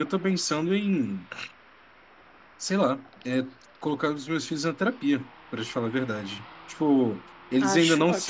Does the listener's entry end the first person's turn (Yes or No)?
No